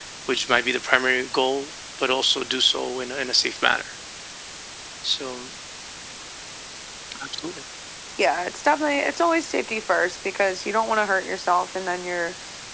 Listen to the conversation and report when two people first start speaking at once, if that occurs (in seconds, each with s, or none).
none